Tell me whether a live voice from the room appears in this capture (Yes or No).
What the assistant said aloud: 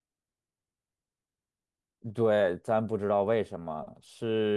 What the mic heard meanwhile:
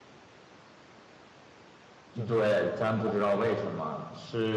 Yes